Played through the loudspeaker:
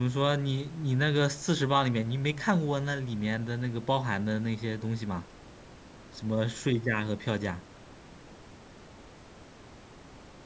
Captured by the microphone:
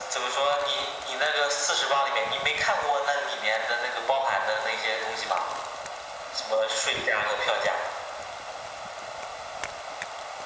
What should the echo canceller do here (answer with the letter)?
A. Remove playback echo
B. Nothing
A